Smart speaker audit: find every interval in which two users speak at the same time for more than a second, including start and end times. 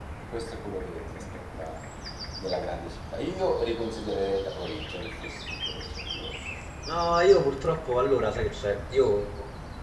none

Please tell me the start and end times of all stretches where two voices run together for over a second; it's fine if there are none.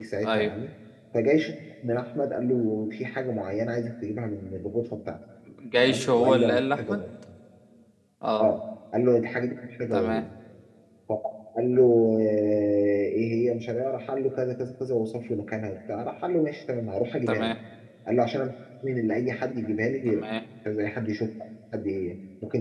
5.8-7.0

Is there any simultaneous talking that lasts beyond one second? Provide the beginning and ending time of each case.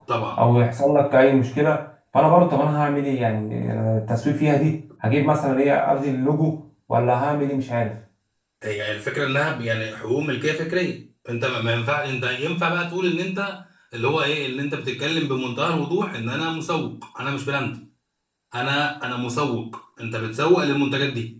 none

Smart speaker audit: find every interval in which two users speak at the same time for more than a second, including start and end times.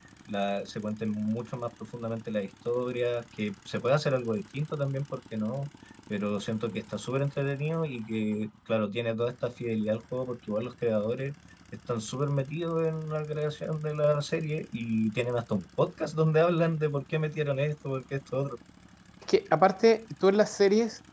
none

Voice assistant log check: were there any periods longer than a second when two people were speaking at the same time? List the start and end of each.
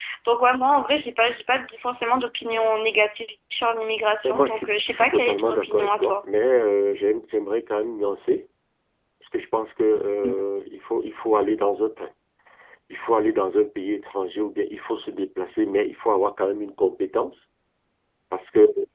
4.2-6.1

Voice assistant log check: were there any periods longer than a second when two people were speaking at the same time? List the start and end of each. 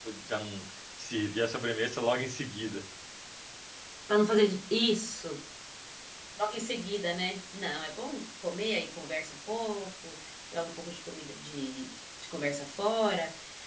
none

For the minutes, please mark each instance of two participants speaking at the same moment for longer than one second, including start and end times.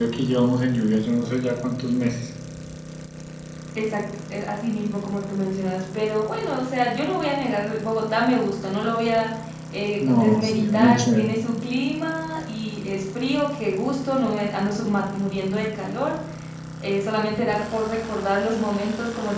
10.0-11.3

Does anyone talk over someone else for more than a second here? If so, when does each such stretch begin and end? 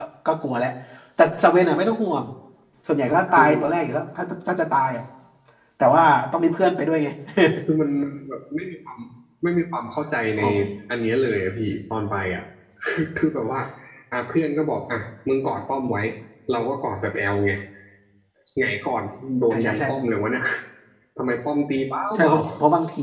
none

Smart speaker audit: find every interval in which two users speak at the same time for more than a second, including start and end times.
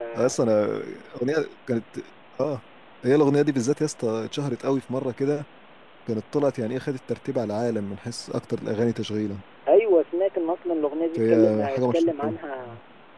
11.2-12.4

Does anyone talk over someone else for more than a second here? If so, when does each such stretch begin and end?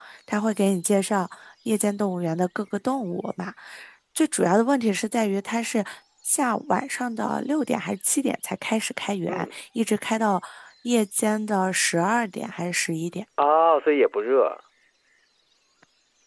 none

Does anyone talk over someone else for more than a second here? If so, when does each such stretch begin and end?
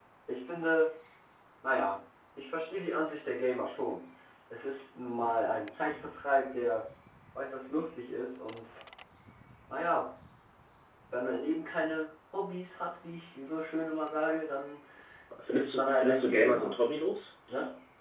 15.5-16.8

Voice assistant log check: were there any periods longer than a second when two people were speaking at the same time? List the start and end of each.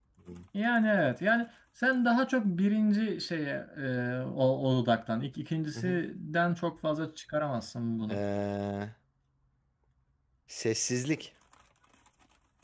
none

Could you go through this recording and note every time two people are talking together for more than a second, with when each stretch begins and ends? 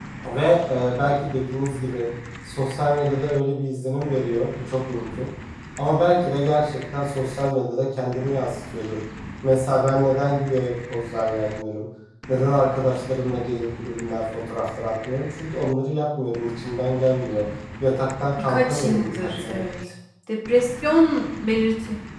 18.4-19.6

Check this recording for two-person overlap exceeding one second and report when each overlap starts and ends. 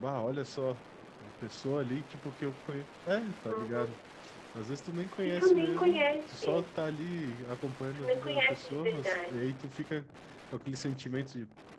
5.2-6.7, 7.9-9.4

